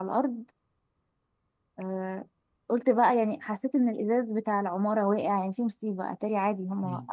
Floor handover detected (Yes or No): Yes